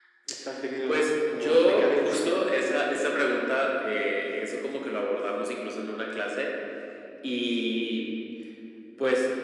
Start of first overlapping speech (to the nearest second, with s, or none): 1 s